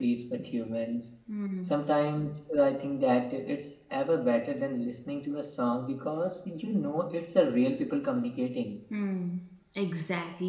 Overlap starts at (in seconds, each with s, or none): none